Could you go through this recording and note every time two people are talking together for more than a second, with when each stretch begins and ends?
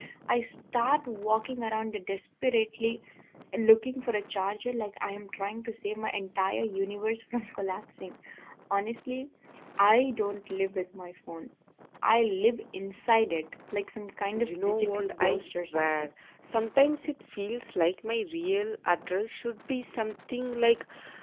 14.4-16.1

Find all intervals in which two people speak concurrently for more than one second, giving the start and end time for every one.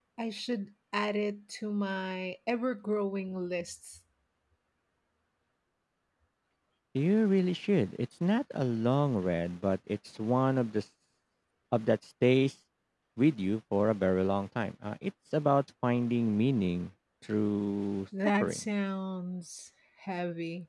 none

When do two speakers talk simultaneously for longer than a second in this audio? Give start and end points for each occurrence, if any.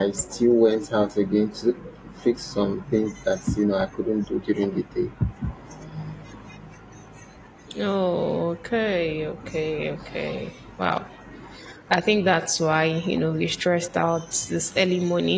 none

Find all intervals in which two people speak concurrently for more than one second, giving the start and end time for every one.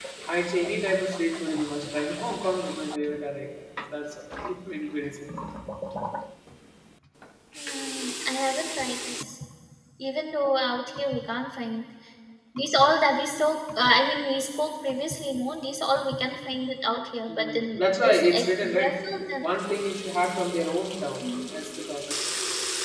17.3-19.0

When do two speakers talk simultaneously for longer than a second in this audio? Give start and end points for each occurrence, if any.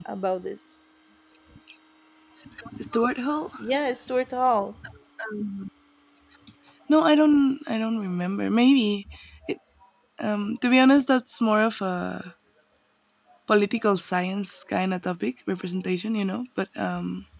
none

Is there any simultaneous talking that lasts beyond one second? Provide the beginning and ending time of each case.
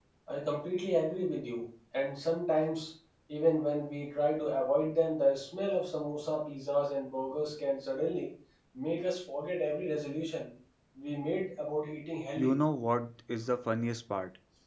none

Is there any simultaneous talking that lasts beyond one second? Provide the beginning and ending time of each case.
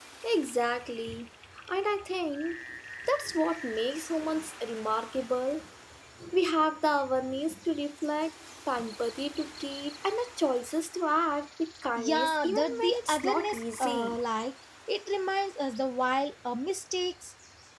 12.0-14.2

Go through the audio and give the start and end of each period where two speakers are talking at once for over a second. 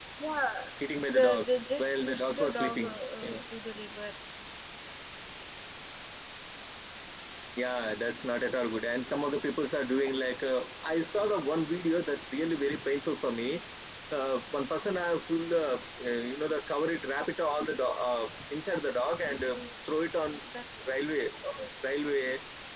1.1-3.4

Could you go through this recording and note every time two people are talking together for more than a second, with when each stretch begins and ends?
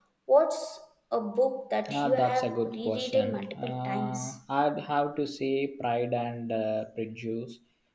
1.9-4.4

